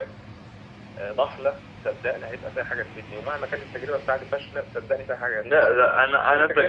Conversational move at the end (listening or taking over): taking over